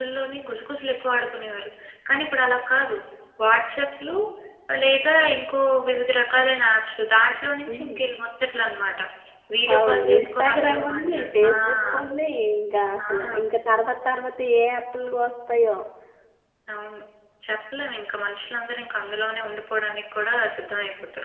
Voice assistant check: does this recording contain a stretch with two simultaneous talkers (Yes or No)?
Yes